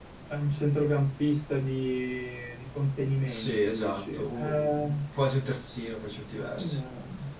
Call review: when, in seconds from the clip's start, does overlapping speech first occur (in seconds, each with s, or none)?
3.3 s